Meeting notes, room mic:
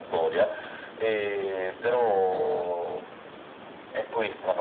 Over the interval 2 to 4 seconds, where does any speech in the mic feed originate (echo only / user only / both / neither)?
echo only